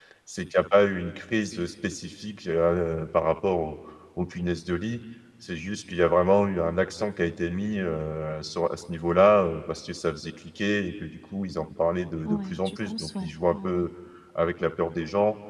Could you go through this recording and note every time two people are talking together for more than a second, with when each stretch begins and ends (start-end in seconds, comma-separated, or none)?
12.2-13.8